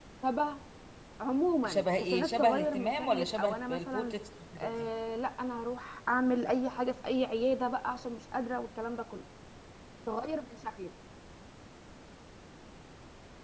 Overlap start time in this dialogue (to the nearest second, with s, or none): 2 s